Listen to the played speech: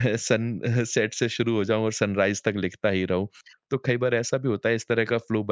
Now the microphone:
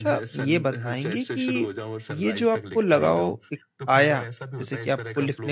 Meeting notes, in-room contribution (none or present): present